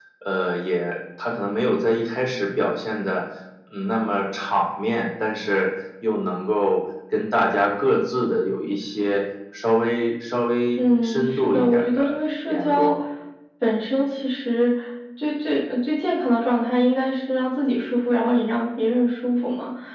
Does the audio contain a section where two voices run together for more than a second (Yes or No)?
Yes